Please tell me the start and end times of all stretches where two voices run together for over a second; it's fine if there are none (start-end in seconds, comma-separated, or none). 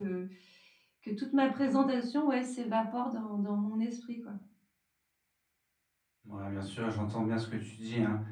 none